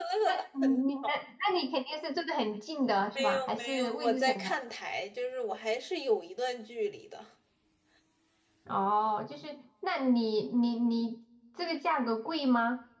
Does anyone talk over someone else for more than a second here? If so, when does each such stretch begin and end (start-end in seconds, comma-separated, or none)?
3.2-4.6